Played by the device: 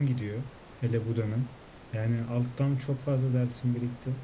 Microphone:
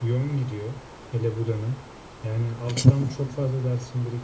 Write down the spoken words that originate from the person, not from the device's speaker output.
Üçüncü,

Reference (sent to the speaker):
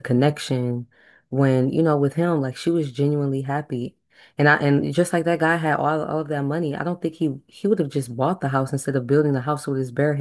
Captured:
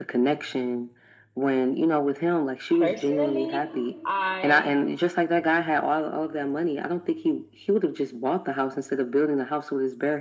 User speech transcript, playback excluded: Personally, I

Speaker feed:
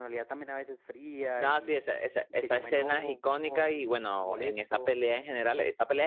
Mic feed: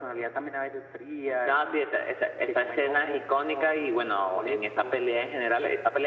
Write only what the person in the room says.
none

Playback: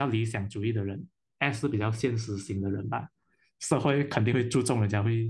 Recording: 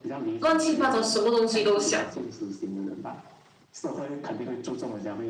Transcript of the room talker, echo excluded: 乱七八糟，什么东西都想。

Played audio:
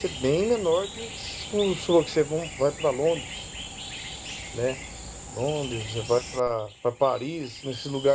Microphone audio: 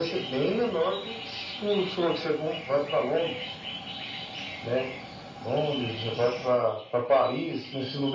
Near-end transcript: none

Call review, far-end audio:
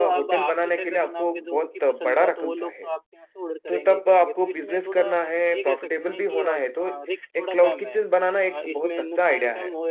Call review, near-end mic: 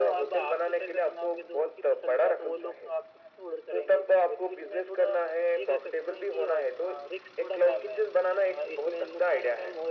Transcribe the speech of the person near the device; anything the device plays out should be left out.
none

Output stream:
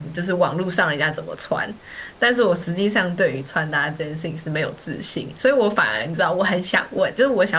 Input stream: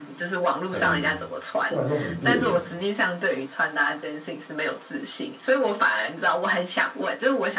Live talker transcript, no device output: 很对我来说很别扭，

